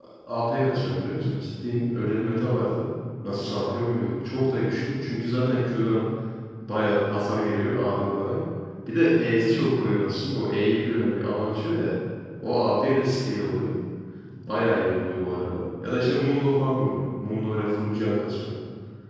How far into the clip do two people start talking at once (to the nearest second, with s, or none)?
none